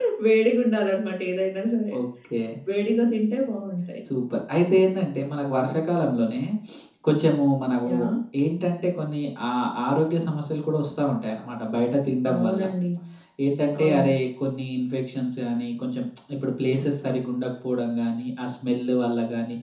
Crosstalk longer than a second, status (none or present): none